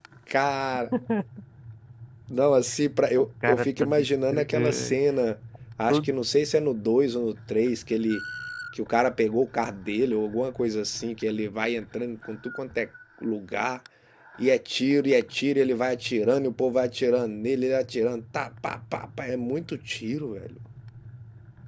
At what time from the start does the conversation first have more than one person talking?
3.2 s

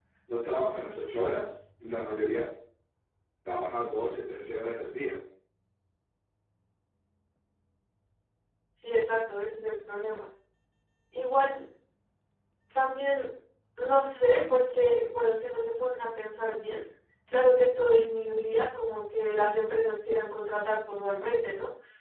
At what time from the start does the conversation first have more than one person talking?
none

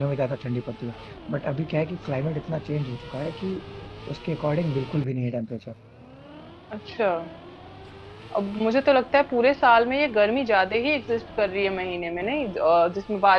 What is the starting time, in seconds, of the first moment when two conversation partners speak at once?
none

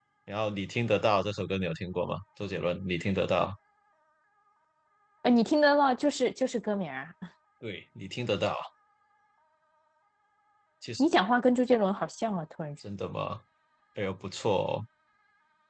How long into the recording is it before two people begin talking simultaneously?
none

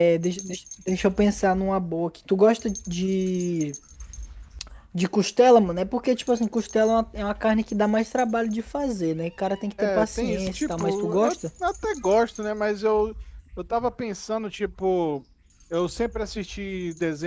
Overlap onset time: 9.8 s

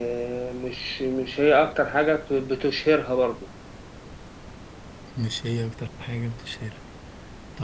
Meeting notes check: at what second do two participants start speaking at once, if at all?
none

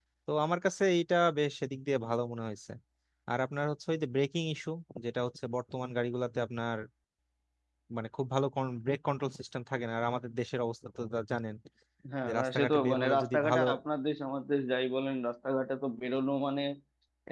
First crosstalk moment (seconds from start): 12.3 s

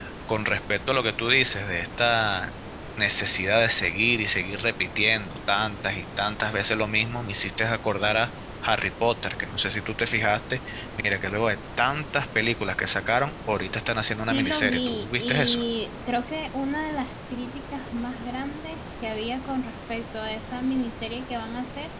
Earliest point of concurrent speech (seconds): 14.2 s

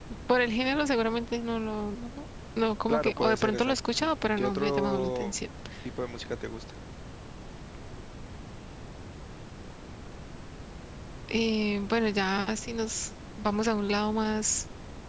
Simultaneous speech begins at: 2.9 s

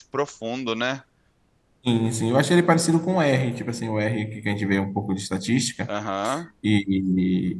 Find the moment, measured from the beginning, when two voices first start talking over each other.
none

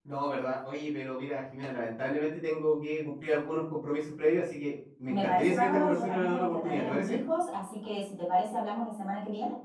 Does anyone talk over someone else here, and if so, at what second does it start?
5.1 s

